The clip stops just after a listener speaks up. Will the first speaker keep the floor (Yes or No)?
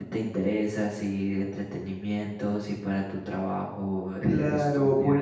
No